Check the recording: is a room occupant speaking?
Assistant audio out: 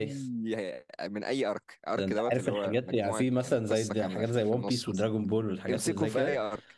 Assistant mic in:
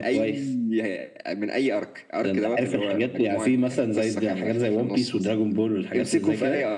No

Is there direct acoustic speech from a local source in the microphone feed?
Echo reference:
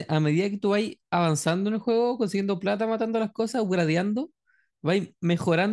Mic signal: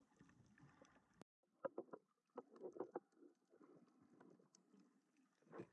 No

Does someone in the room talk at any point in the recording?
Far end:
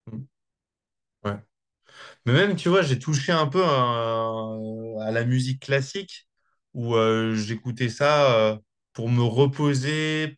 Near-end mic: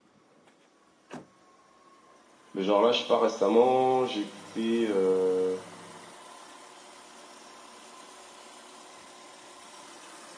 Yes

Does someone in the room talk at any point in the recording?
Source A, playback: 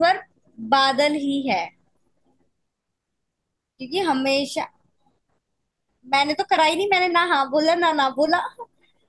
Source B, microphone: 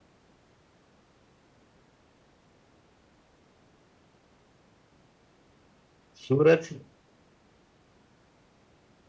Yes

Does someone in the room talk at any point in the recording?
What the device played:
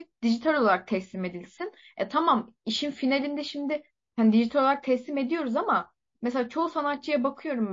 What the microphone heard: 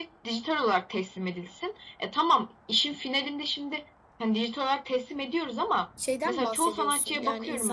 Yes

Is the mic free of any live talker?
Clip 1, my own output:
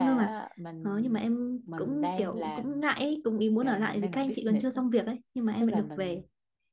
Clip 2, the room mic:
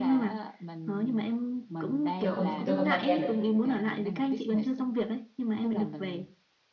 No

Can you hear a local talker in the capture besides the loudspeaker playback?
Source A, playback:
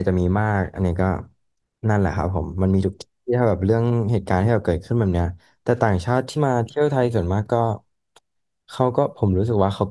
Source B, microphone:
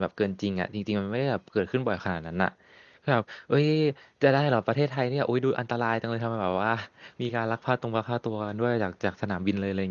Yes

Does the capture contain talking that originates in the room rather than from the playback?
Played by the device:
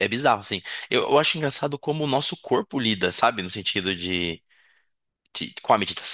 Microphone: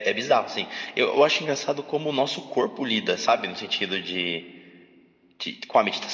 No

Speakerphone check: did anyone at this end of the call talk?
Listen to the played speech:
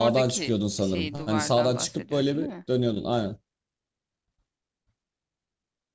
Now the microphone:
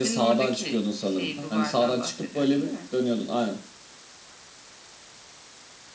No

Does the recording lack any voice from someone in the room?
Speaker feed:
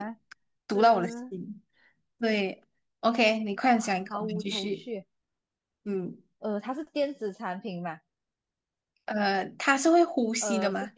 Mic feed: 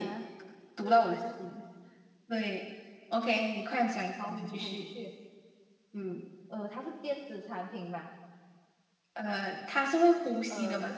Yes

